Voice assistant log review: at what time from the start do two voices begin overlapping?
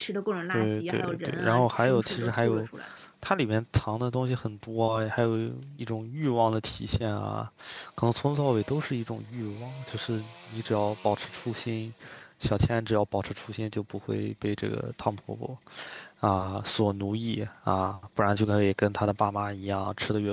0.5 s

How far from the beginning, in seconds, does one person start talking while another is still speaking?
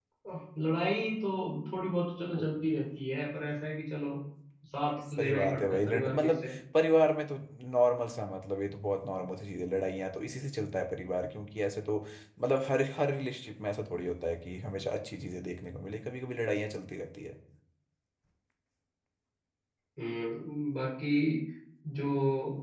5.1 s

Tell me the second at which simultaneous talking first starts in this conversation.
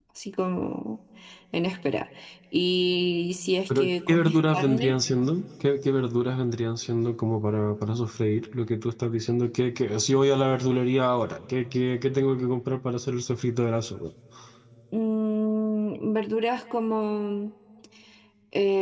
3.7 s

